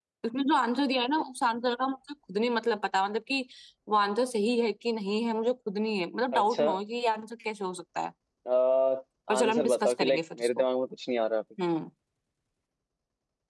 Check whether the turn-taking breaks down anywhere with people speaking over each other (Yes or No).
Yes